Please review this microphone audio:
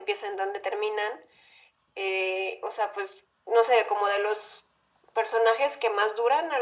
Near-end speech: none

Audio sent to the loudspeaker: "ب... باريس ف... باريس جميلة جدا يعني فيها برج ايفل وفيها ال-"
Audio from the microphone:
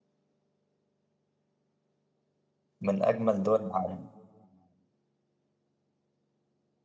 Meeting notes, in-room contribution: present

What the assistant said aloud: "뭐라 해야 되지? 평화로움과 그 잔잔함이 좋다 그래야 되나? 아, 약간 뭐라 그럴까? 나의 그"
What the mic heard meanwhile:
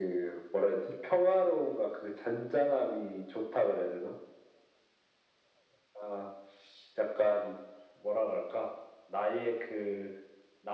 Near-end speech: none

